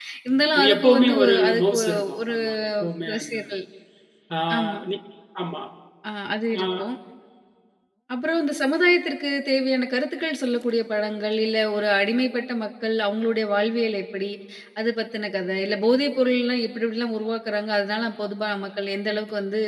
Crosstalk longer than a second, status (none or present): present